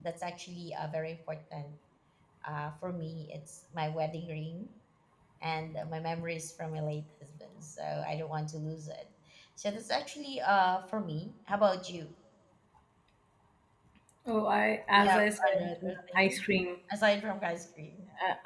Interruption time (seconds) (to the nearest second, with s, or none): 15 s